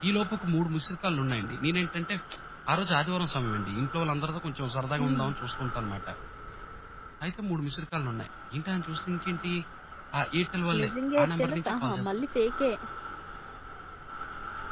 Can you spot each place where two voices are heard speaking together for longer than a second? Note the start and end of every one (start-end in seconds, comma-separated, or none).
10.8-12.1